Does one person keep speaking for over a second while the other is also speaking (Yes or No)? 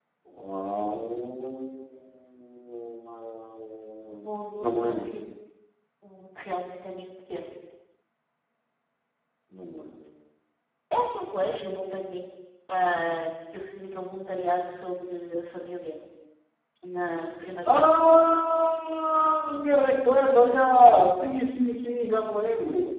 No